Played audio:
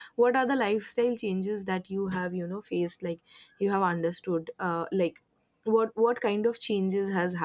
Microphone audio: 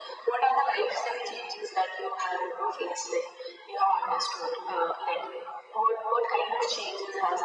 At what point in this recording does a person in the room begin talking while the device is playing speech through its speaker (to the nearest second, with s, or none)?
none